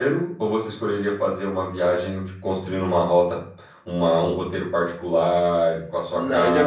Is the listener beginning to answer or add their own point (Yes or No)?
Yes